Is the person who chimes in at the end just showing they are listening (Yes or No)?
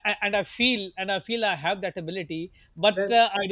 Yes